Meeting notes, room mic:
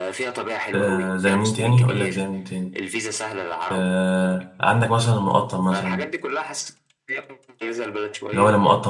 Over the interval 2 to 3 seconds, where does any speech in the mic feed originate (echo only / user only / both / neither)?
both